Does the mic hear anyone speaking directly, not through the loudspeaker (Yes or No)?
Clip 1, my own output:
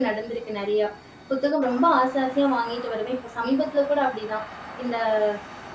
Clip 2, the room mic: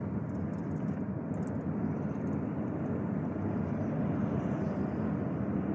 No